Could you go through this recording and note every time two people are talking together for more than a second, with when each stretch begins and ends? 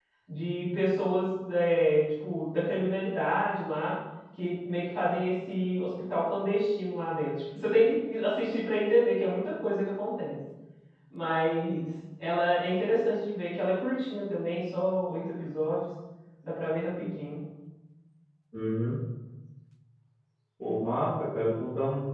none

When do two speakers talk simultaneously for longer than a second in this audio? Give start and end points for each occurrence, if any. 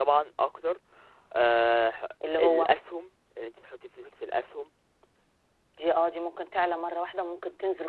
none

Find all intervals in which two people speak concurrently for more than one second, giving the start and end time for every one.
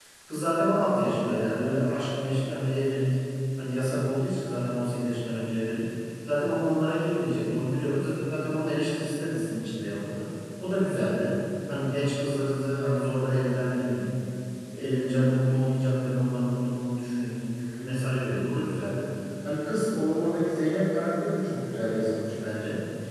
none

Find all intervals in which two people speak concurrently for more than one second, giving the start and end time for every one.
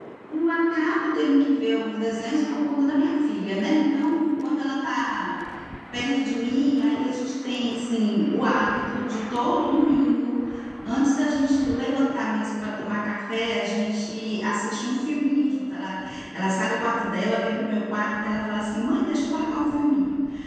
none

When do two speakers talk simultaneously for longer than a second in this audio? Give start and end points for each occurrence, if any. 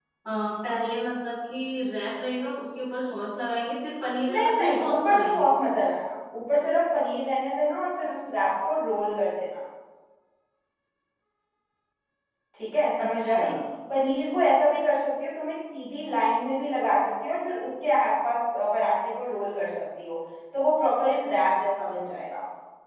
4.3-5.5

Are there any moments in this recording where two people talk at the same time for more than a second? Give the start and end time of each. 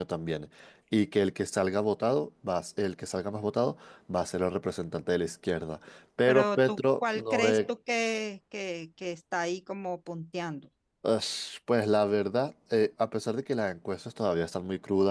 6.3-7.7

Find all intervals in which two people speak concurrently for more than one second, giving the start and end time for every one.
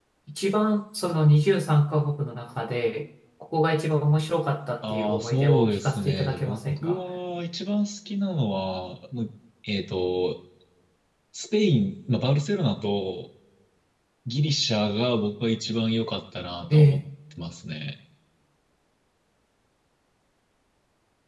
4.9-7.0

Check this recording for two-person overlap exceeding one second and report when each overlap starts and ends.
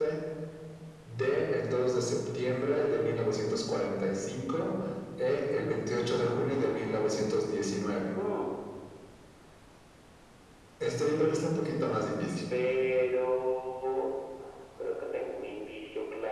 none

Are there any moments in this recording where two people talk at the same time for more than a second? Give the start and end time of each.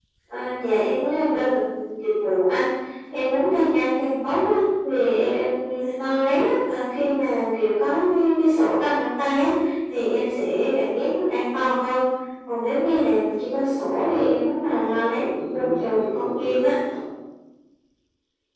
14.8-16.7

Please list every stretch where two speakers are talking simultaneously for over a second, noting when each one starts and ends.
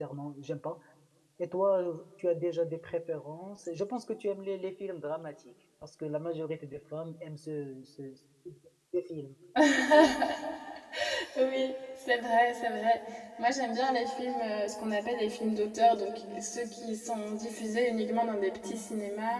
none

